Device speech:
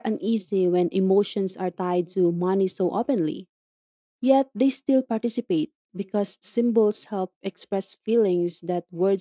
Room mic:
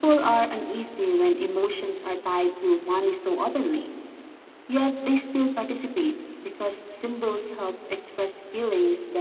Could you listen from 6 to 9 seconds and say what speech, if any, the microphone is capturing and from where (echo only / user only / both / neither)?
echo only